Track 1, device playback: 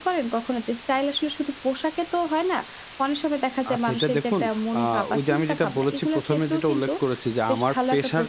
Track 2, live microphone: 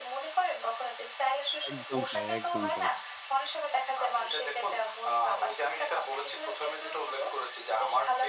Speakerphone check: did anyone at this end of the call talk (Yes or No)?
Yes